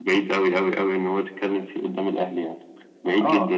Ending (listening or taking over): taking over